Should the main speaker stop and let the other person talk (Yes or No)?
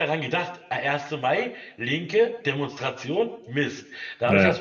No